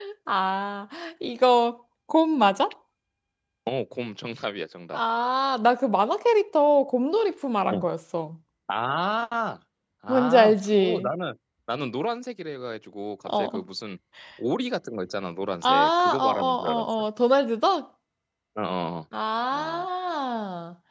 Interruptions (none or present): present